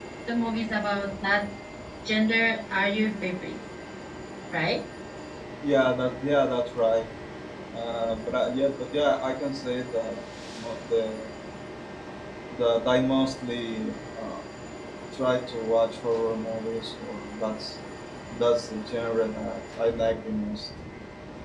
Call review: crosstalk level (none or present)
none